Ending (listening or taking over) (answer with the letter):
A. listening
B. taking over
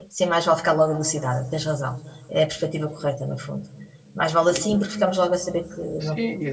B